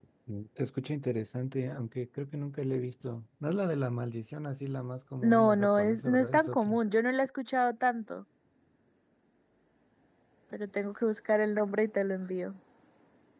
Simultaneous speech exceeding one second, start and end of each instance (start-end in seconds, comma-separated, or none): 5.2-6.8